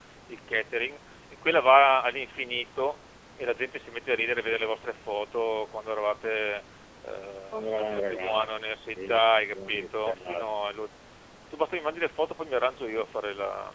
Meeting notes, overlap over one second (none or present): present